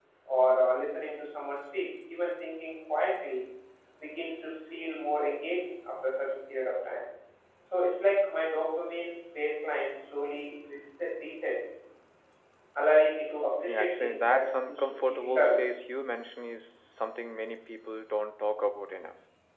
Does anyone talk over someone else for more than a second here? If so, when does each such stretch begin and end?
13.7-15.6

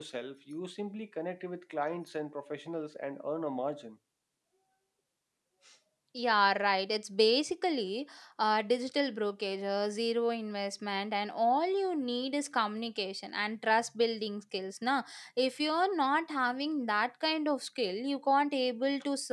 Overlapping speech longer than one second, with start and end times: none

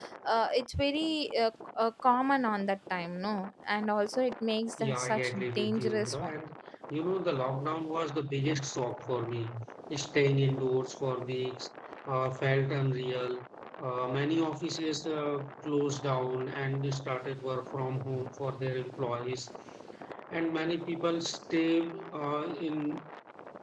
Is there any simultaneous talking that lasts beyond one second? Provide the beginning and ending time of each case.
4.8-6.3

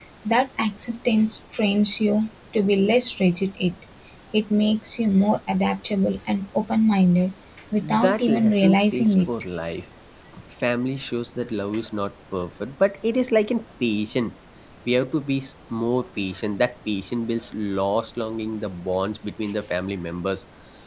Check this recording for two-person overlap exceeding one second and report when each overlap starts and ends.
7.8-9.3

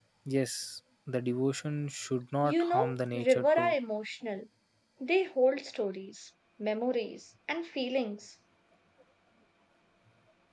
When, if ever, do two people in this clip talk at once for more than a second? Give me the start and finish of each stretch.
2.4-3.7

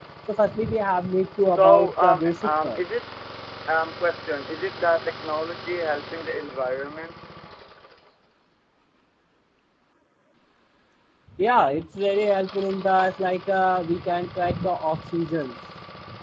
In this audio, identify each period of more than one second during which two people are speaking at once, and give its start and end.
1.6-2.8

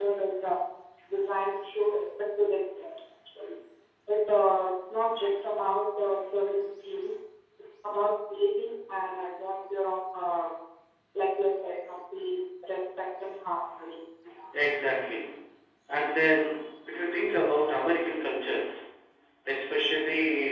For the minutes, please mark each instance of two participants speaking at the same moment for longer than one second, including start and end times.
none

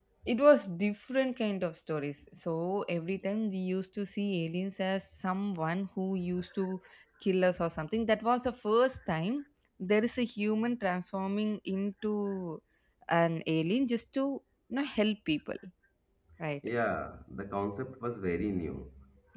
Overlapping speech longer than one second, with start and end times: none

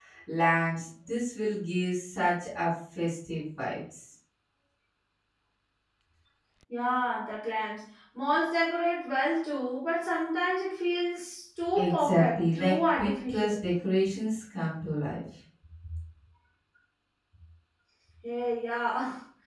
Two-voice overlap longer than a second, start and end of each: 11.8-13.6

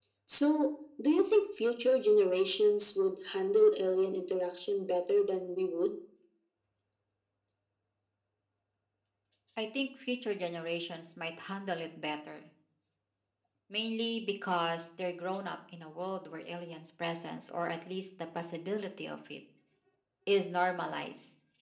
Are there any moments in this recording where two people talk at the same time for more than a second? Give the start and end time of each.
none

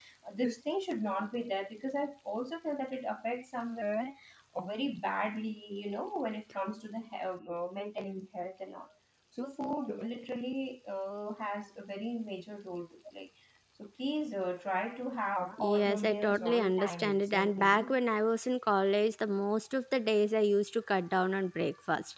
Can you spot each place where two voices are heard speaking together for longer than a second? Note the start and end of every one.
15.6-18.0

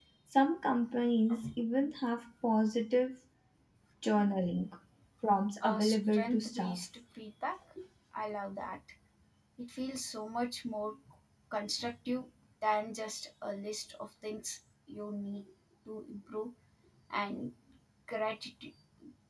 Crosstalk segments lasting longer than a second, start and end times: 5.6-6.8

